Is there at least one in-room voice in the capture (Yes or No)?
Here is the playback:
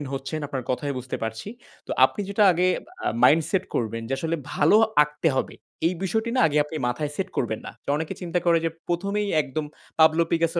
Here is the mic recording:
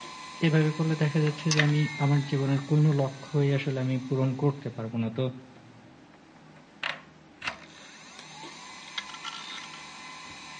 Yes